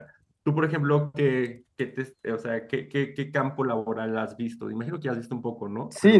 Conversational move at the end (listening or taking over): taking over